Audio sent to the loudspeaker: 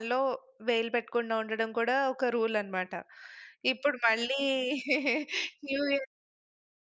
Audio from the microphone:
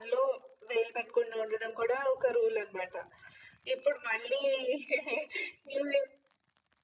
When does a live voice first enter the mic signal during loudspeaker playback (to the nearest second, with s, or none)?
none